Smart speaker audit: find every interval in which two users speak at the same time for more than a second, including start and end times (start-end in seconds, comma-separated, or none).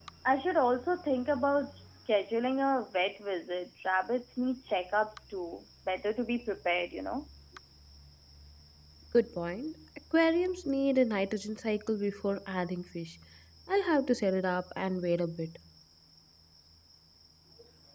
none